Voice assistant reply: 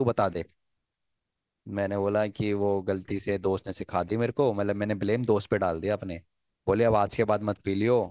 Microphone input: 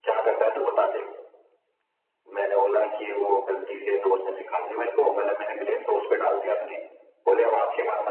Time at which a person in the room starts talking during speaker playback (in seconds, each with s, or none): none